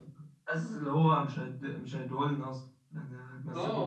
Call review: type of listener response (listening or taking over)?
taking over